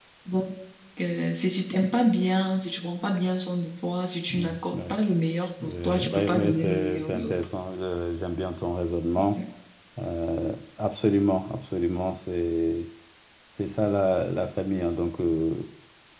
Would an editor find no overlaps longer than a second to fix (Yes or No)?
No